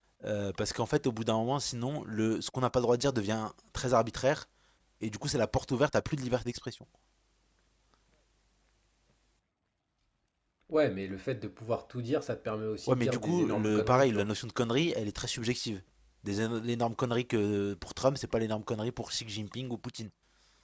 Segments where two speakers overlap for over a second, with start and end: 12.9-14.3

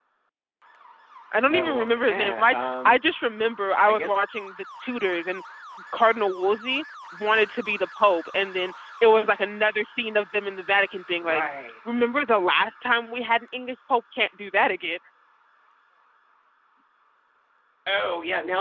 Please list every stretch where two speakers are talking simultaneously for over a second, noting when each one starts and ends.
1.5-3.0

